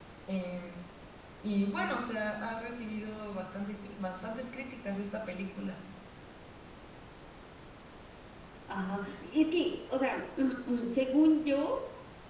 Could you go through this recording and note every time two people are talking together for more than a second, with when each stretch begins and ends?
none

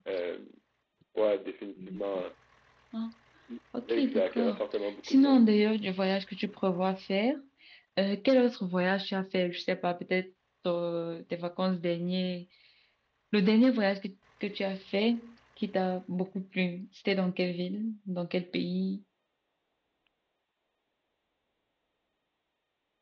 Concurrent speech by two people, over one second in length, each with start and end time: 3.9-5.4

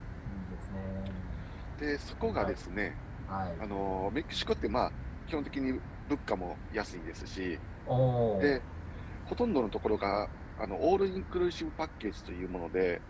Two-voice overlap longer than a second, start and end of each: none

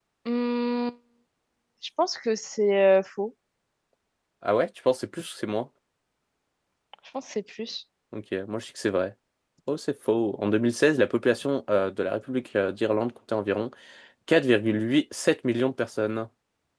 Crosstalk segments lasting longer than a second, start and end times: none

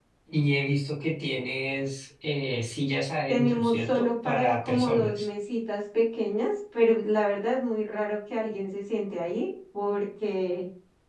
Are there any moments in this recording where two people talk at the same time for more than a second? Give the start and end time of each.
3.3-5.2

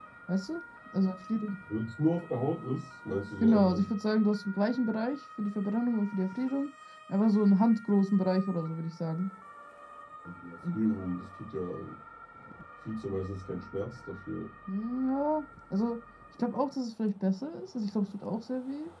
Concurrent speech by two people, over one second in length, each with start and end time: none

